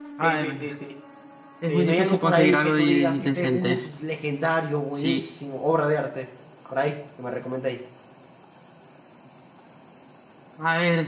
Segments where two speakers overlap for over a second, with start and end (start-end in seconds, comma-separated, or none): 1.7-3.7